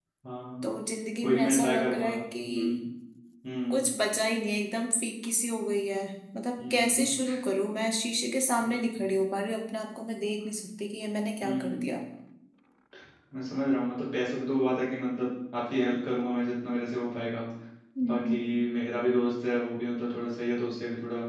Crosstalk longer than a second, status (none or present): present